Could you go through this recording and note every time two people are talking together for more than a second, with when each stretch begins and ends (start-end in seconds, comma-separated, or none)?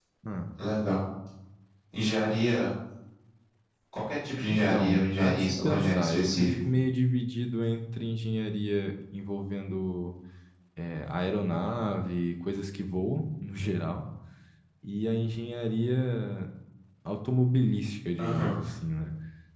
4.5-6.5